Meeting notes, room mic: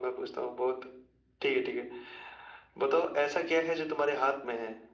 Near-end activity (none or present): none